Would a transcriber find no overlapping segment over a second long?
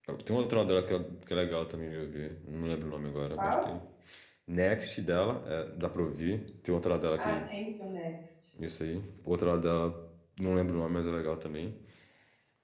Yes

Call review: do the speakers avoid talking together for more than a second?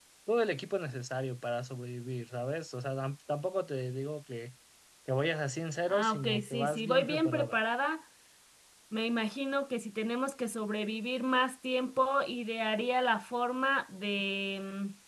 No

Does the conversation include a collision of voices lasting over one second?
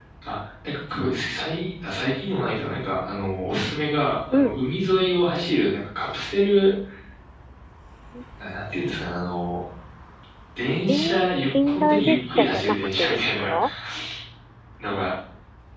Yes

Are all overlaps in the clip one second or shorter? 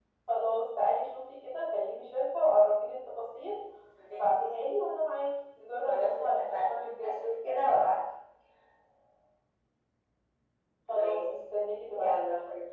No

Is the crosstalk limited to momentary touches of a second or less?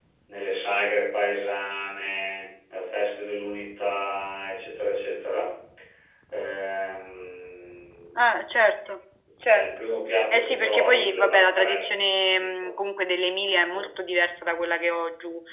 No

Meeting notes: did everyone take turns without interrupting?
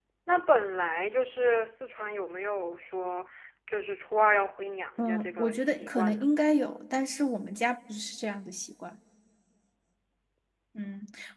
No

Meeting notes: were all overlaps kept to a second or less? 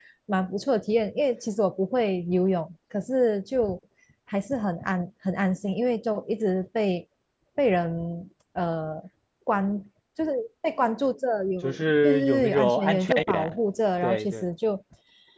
No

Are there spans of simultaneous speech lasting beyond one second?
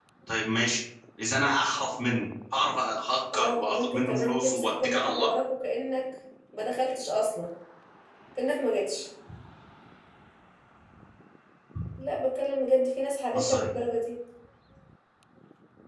Yes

